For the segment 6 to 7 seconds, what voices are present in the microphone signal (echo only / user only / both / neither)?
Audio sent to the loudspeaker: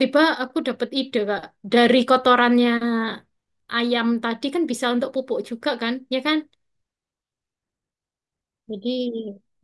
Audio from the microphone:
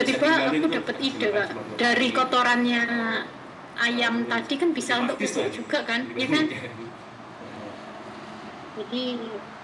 both